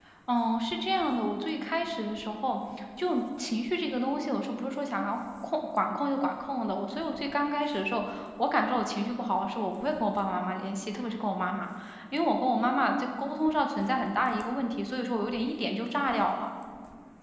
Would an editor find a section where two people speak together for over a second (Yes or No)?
No